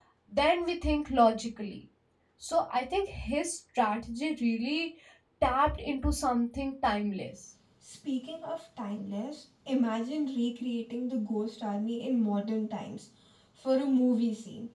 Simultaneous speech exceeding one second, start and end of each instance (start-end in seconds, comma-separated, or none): none